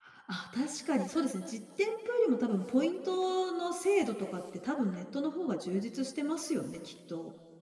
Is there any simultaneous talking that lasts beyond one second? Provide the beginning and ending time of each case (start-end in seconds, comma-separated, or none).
none